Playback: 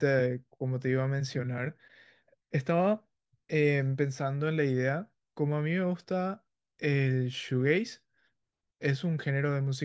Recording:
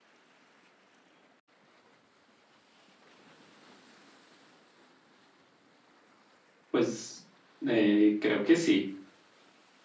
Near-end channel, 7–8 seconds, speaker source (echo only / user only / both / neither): user only